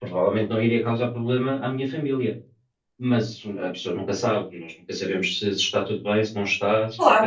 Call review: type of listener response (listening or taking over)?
taking over